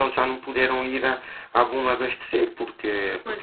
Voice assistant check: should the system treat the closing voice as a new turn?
No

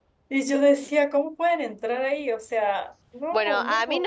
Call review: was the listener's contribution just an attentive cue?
No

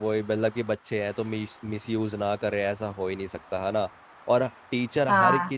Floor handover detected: No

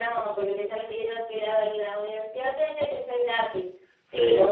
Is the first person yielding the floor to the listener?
No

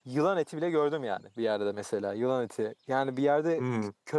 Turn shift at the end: No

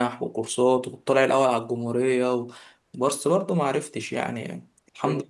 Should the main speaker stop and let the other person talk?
Yes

